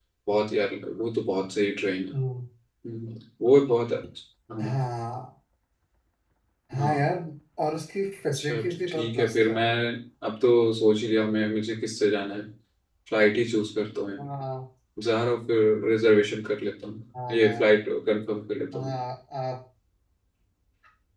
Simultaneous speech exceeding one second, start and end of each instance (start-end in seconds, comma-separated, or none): 8.3-9.6